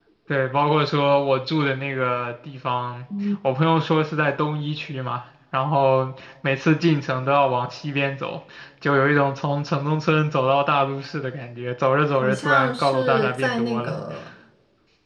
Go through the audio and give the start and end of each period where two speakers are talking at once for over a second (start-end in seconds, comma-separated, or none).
12.2-13.9